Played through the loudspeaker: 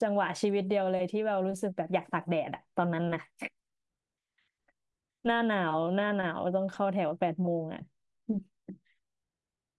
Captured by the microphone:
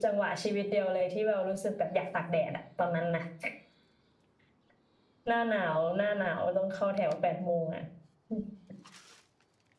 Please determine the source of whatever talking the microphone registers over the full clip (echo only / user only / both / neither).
echo only